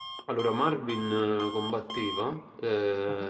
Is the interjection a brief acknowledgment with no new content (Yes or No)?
Yes